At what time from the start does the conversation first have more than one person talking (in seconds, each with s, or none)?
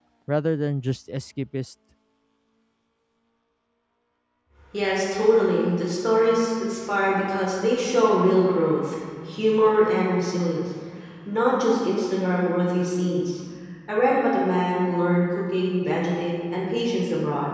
none